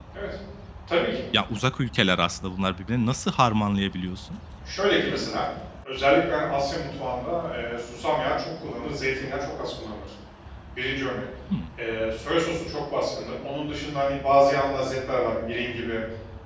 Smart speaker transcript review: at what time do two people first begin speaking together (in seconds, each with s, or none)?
none